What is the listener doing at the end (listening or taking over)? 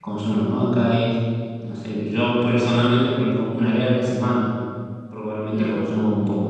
listening